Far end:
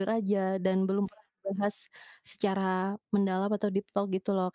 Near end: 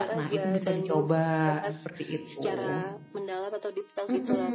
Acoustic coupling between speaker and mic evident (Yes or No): Yes